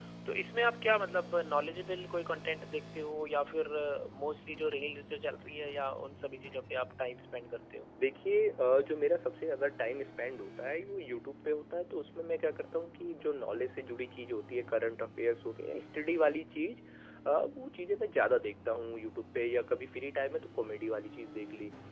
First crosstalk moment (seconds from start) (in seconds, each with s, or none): none